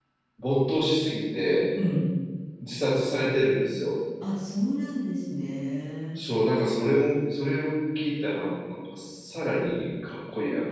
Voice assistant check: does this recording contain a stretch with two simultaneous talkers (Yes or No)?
No